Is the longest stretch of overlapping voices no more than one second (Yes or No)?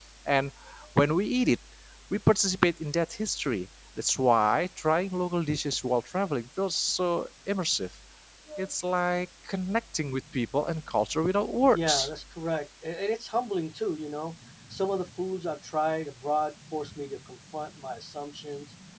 Yes